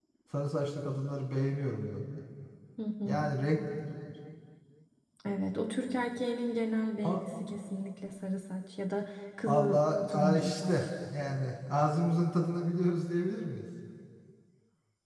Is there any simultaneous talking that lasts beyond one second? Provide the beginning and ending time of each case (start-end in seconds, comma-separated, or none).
9.5-10.7